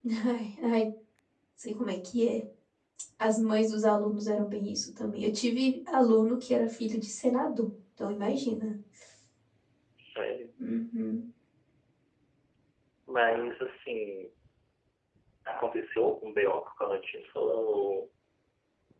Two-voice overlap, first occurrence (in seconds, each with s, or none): none